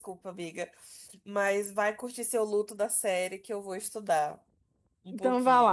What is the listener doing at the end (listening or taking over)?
taking over